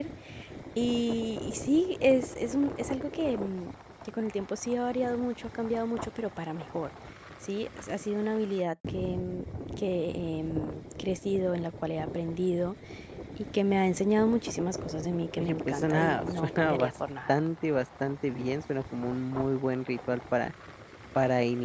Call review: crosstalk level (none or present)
present